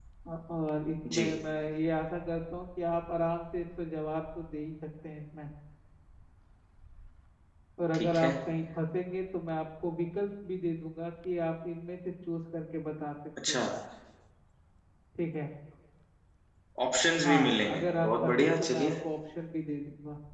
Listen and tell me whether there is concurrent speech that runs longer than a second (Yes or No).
Yes